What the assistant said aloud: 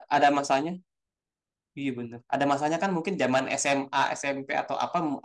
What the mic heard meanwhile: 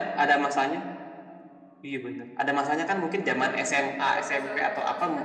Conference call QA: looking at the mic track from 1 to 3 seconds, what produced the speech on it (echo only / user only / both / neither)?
echo only